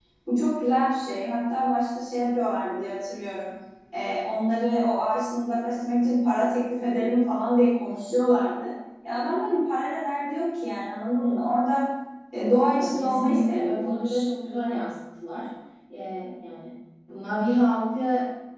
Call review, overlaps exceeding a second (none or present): present